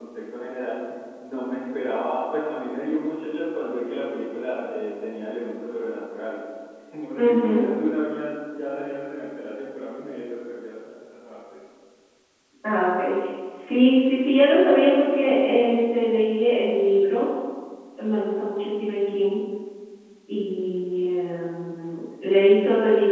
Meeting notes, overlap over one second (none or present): none